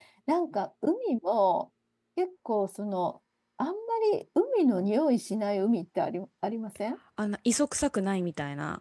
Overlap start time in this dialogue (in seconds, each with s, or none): none